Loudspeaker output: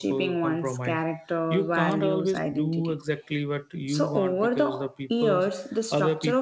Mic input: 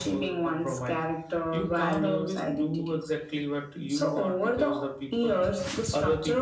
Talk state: echo only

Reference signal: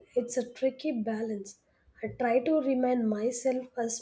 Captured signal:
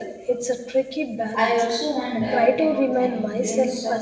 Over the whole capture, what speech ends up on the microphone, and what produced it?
both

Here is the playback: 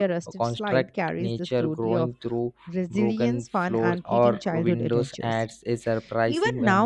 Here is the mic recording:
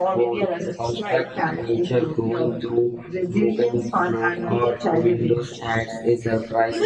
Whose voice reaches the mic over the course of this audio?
echo only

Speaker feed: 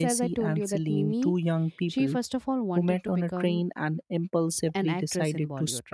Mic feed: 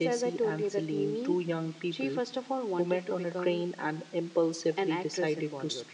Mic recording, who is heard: echo only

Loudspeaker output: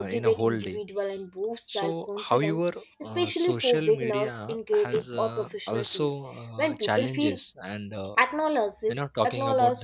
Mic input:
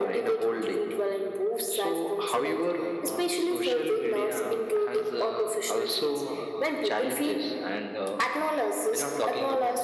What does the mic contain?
echo only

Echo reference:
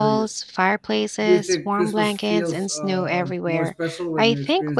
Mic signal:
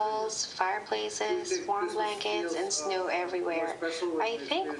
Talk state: echo only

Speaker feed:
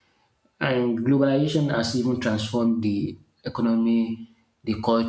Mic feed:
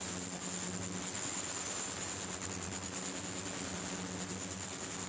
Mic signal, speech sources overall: neither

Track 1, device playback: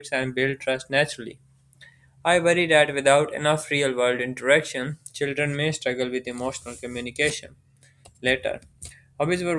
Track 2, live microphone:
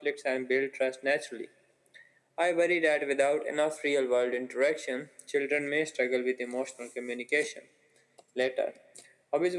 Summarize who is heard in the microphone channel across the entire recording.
echo only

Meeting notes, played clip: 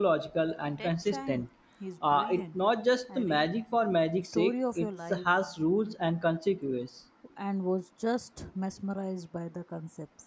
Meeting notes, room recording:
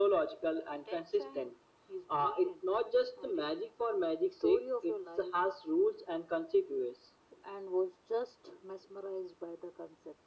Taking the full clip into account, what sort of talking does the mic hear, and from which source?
echo only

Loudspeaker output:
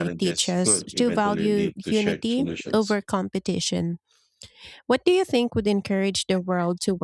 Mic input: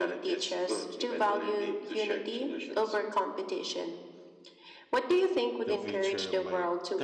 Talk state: both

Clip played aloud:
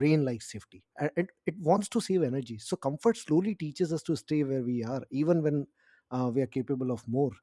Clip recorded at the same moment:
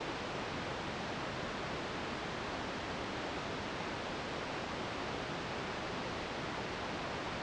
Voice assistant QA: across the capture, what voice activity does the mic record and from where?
neither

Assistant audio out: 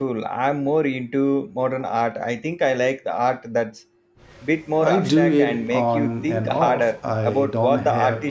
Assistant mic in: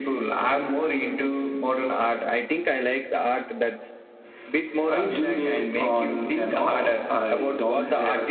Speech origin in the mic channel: echo only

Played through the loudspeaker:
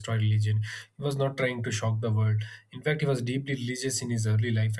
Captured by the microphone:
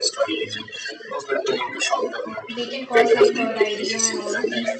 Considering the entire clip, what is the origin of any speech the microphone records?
both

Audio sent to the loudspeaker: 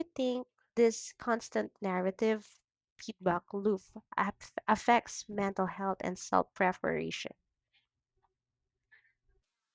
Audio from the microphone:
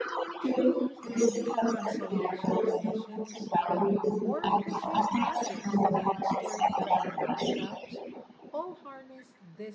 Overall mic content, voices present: both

